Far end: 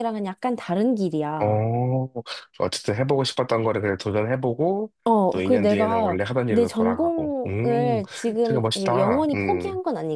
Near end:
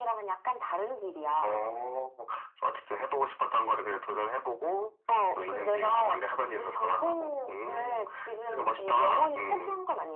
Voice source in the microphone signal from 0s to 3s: echo only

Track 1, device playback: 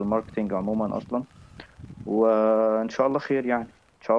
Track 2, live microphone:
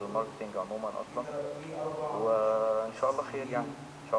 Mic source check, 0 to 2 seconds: both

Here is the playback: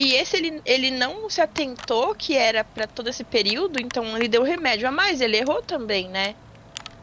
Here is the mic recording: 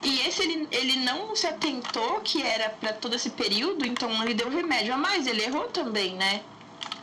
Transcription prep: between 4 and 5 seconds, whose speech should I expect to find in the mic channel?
echo only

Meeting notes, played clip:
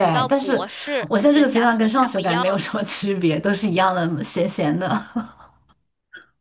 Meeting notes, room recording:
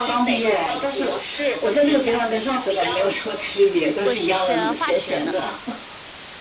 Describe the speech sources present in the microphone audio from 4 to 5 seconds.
both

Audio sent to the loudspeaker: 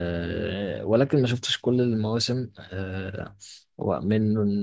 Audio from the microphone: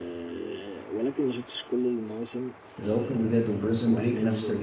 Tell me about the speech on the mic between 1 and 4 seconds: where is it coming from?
both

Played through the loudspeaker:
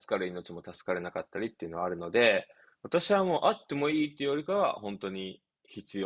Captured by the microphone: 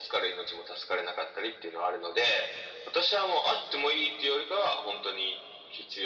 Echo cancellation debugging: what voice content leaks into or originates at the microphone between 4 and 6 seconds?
echo only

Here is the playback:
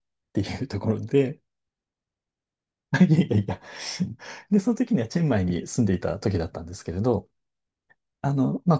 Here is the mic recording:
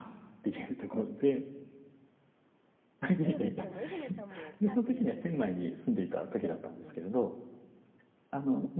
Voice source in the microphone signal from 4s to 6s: both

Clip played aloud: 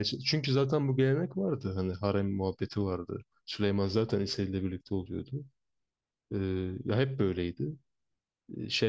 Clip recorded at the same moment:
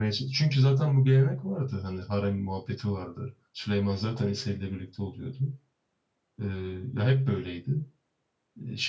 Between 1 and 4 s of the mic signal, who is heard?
echo only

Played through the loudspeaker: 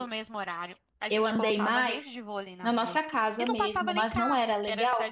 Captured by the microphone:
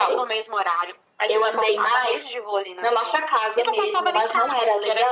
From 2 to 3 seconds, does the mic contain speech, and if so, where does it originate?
echo only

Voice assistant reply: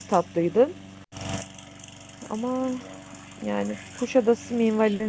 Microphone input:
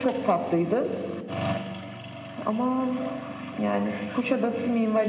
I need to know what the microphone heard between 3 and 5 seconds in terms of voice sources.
echo only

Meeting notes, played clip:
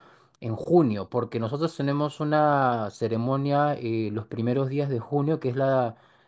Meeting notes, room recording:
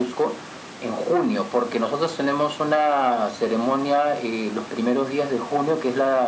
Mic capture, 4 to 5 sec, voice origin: echo only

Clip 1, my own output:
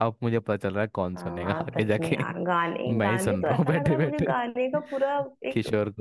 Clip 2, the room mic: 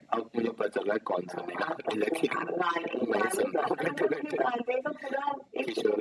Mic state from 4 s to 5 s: echo only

